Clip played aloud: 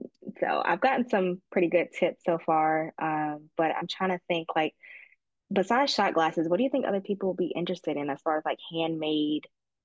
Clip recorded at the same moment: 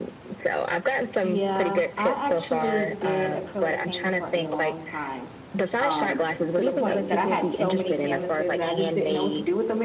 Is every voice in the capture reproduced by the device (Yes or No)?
No